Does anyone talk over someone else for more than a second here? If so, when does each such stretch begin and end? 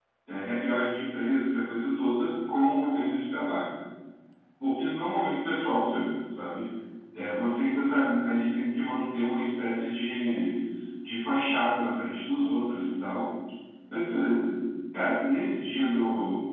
none

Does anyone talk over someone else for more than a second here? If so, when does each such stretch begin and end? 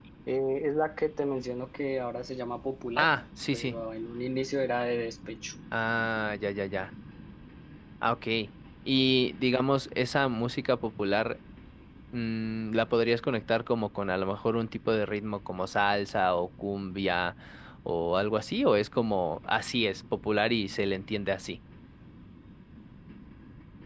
none

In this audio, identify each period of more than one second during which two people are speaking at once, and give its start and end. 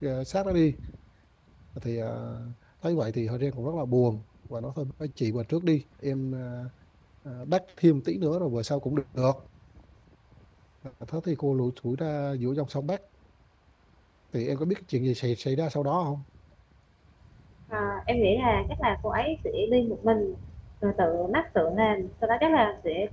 none

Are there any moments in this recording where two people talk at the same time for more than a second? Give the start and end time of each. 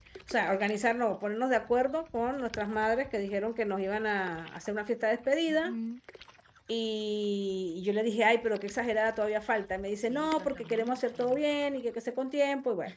10.0-11.4

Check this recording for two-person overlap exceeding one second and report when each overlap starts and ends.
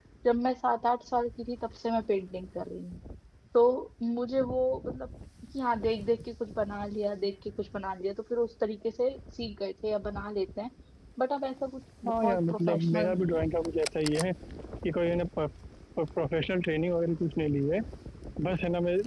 12.1-13.4

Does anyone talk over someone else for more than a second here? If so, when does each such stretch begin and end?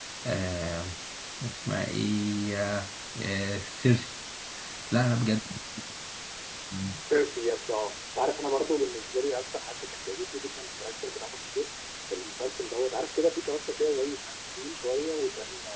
none

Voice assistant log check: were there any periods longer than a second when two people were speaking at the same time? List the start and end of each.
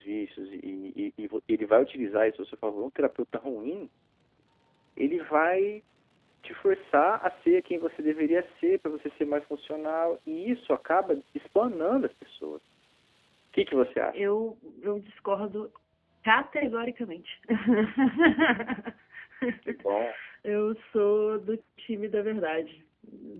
none

